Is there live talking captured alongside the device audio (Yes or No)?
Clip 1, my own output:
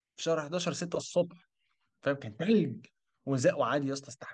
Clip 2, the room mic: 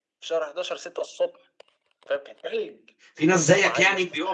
Yes